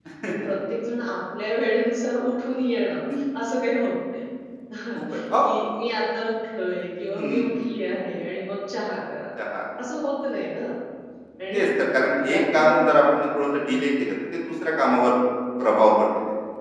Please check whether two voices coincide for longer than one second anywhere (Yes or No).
Yes